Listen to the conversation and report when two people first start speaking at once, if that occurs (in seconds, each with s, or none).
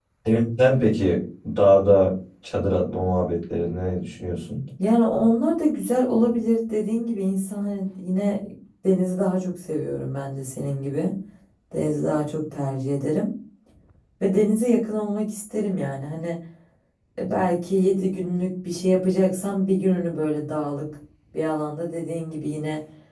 none